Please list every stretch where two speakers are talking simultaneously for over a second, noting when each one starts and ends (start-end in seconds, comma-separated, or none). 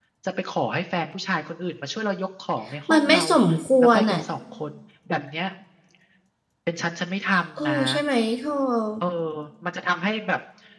none